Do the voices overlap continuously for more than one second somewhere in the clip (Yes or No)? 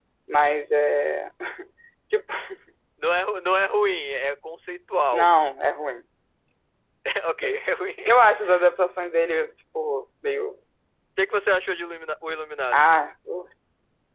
No